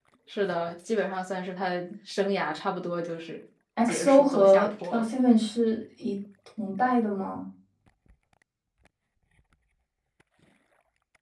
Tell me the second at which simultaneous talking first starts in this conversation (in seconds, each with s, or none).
3.8 s